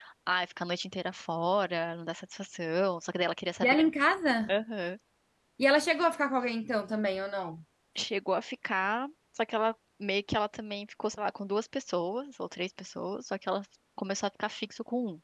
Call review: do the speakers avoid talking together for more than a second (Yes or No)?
Yes